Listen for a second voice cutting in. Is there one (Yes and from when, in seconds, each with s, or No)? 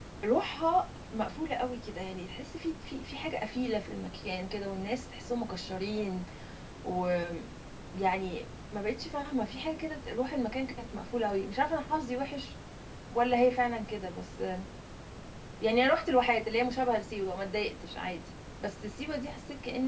No